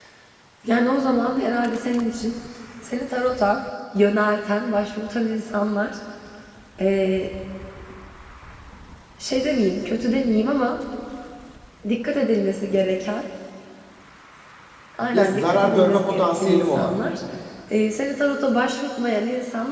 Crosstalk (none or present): present